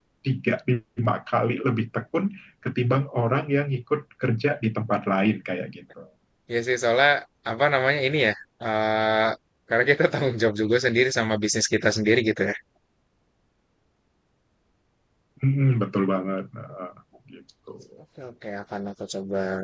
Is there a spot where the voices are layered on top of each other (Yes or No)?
No